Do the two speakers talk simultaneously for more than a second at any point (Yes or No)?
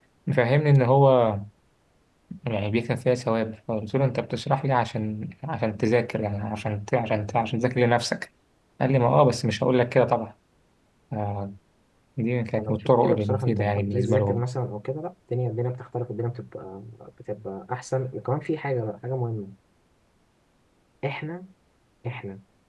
Yes